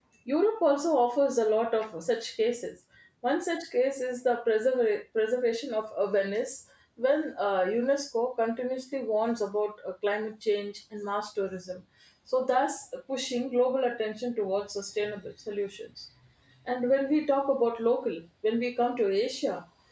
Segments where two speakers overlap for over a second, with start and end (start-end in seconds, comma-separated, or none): none